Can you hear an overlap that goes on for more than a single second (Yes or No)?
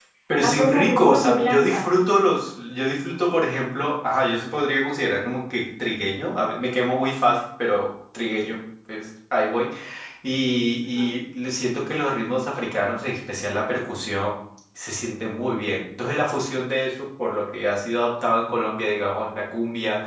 Yes